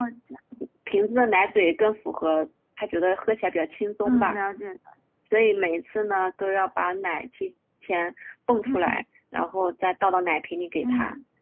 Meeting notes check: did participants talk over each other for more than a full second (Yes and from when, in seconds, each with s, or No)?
No